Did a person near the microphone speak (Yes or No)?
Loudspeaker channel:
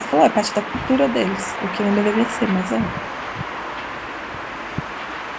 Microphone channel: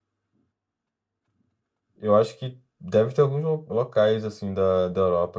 Yes